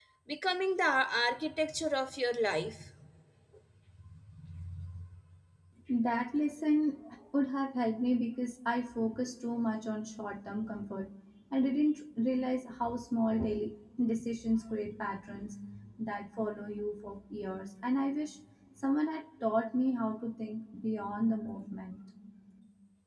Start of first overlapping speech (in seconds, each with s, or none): none